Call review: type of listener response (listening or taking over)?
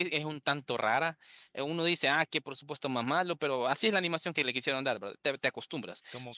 listening